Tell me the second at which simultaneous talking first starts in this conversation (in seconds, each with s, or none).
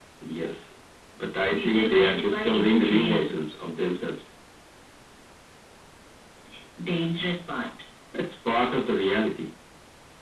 1.5 s